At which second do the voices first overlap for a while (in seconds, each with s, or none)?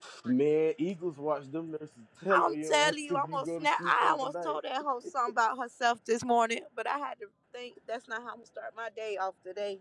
2.3 s